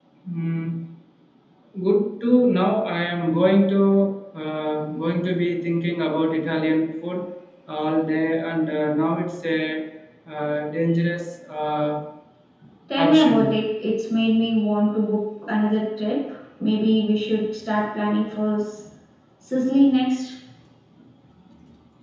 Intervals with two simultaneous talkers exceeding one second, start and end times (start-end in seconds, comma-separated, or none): none